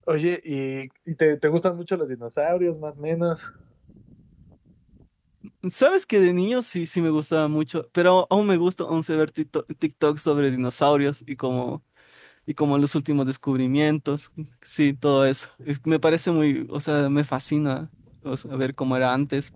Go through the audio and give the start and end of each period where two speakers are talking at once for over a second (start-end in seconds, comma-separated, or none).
none